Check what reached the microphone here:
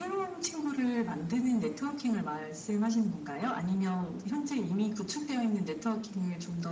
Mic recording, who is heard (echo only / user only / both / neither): echo only